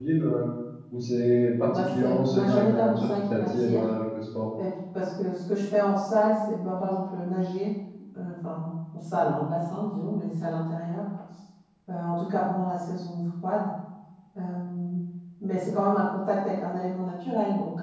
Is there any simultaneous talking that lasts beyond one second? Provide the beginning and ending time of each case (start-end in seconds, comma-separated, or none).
1.7-3.9